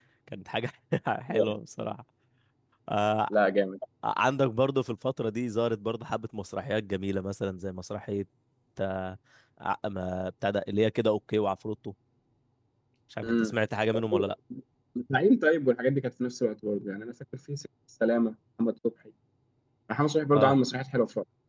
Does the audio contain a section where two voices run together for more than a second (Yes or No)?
No